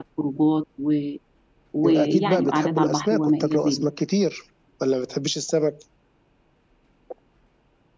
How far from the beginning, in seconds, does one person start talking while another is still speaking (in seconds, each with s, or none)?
1.8 s